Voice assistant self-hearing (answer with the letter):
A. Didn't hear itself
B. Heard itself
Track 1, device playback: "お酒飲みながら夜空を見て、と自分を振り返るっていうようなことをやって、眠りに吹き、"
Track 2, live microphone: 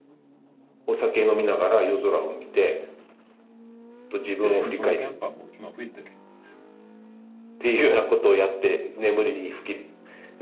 B